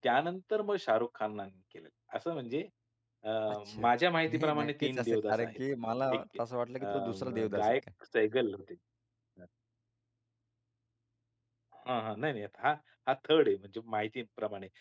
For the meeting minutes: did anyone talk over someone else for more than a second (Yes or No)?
Yes